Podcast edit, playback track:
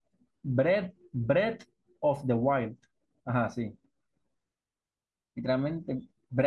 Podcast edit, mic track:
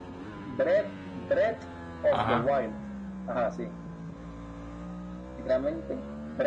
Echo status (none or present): present